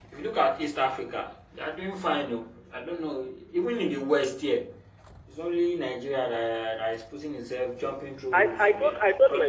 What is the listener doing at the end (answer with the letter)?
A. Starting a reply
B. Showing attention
A